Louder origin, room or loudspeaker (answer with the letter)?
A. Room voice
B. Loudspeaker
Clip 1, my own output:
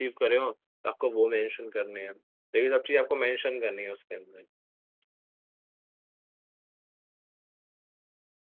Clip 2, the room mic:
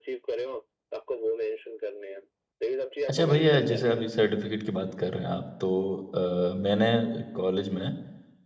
A